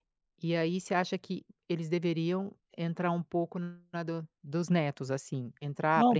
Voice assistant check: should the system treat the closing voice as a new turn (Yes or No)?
Yes